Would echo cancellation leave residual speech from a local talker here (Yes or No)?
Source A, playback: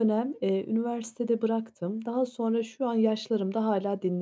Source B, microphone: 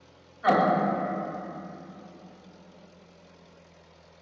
Yes